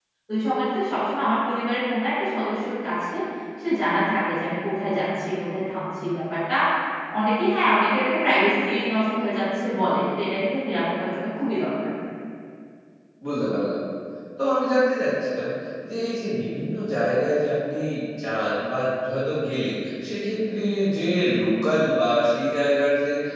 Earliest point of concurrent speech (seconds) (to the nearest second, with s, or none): none